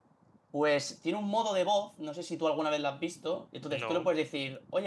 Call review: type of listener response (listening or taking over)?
listening